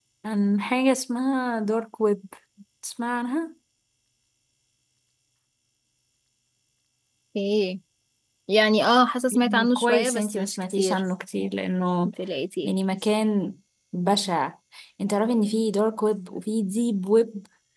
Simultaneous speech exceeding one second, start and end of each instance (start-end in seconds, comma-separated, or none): 9.3-11.0